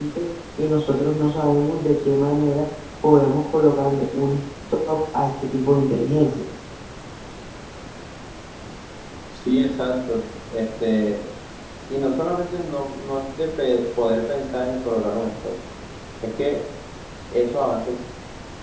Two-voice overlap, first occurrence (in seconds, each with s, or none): none